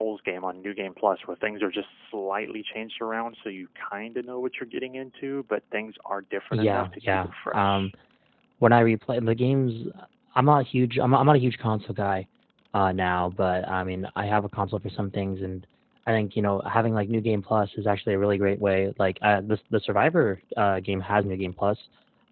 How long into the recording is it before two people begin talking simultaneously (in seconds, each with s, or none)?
6.5 s